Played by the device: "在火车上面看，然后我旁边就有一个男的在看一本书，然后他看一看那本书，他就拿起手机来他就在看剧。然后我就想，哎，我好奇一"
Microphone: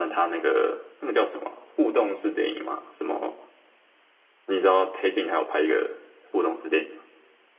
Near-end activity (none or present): present